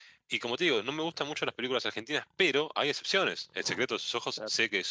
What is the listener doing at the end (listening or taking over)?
listening